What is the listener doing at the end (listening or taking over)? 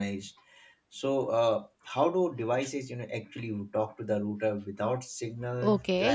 taking over